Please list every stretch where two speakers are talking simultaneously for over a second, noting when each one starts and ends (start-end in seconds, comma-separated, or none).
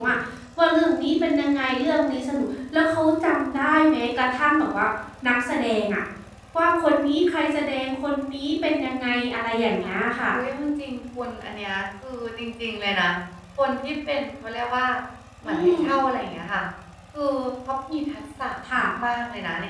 none